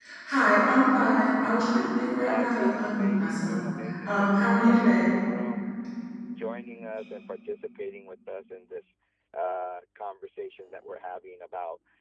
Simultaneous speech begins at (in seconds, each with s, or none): 2.2 s